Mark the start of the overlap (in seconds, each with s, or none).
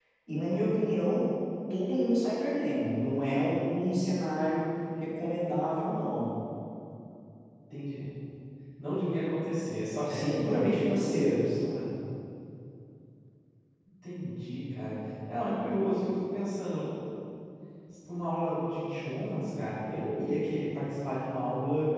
10.1 s